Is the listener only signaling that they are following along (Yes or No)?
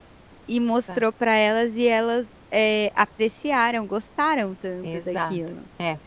No